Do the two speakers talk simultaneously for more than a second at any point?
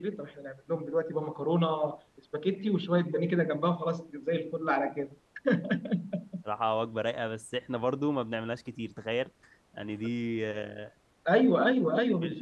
No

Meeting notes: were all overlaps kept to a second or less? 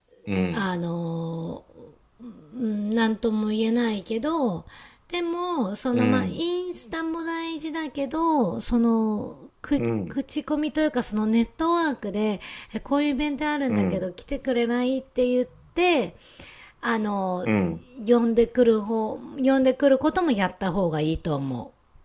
Yes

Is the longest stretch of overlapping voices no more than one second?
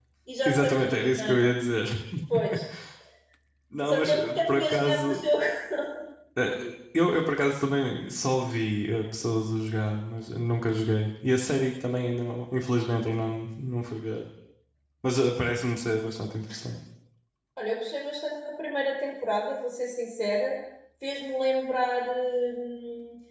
No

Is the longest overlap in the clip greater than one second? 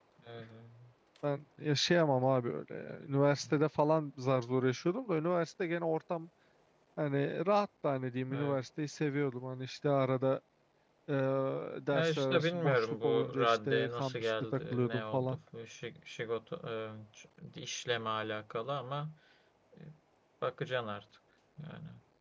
Yes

